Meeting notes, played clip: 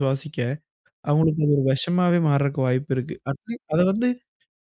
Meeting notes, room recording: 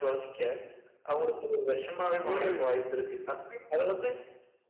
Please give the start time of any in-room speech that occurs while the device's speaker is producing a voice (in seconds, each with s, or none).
2.2 s